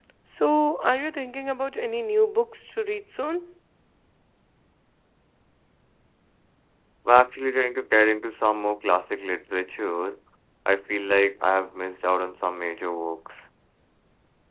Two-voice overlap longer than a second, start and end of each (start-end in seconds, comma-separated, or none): none